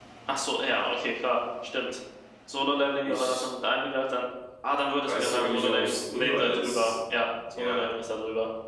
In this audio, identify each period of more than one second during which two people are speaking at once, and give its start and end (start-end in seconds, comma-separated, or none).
5.0-6.9